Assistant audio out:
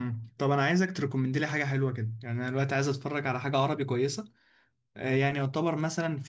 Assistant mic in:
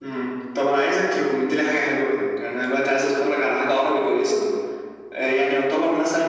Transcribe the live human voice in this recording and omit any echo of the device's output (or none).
none